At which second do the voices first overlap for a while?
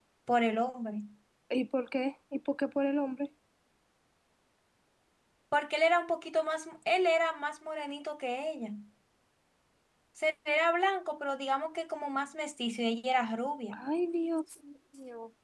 none

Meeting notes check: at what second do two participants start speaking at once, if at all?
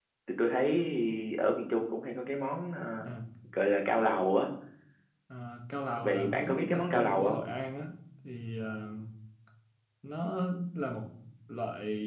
6 s

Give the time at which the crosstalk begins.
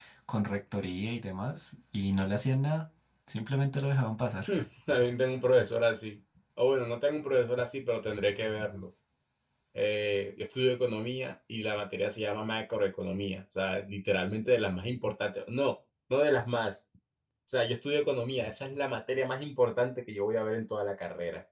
none

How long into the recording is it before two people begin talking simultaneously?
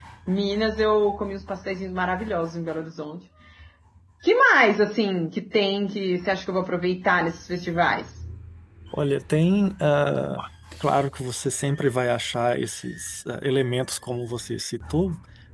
none

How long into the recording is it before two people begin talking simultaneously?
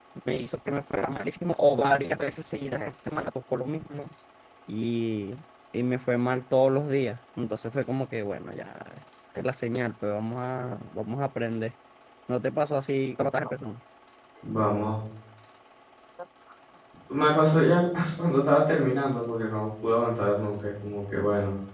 none

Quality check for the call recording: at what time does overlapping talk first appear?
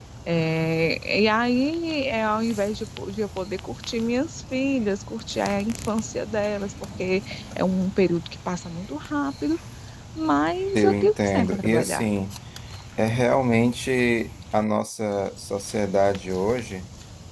11 s

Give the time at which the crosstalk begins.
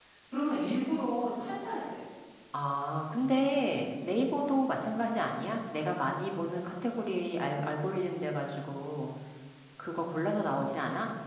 none

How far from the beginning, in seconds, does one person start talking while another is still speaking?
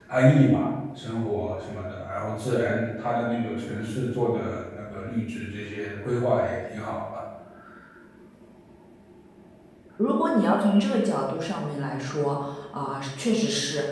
none

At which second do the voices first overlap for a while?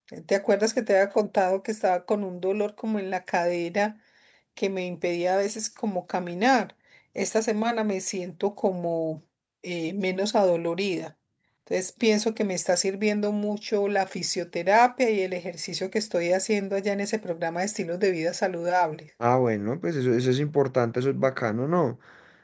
none

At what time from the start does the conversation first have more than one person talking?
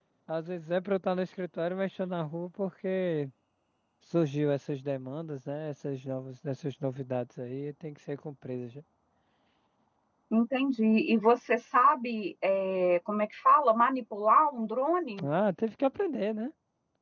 none

